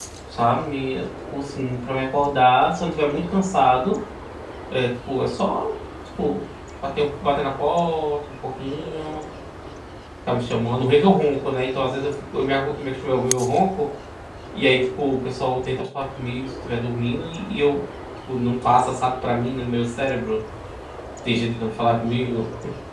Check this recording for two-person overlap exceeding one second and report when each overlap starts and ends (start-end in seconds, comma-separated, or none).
none